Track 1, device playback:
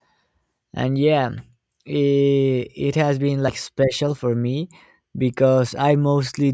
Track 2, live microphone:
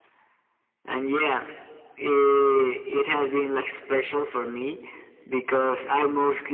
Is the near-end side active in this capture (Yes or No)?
No